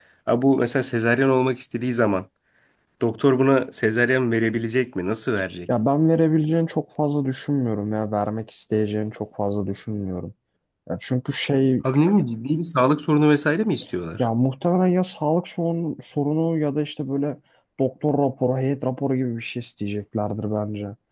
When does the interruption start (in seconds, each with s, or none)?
none